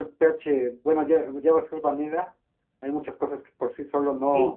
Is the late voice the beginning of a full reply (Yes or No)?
Yes